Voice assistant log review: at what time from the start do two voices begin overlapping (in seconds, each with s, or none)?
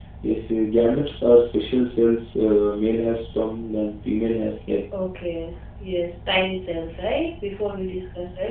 none